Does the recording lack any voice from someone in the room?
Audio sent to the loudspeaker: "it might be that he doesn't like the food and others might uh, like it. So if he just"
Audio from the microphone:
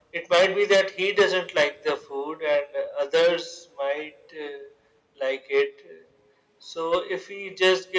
Yes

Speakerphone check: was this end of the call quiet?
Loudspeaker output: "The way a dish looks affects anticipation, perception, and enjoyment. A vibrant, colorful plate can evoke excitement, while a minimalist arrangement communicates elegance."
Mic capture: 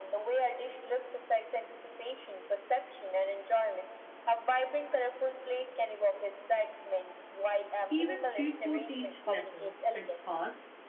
No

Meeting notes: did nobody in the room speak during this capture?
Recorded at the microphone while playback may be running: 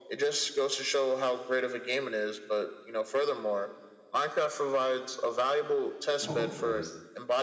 No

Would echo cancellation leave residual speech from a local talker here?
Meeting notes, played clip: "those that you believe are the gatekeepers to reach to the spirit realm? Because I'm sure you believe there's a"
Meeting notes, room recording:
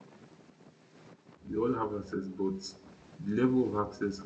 Yes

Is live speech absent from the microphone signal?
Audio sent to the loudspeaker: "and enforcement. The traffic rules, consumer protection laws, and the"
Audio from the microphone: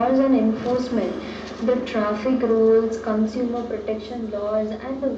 Yes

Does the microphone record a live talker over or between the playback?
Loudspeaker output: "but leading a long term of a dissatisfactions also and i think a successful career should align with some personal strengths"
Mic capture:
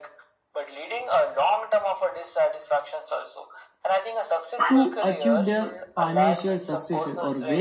Yes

